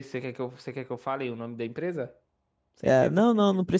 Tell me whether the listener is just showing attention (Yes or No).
No